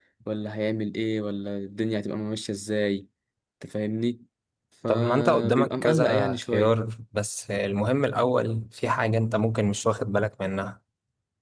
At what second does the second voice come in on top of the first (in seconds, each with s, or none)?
4.9 s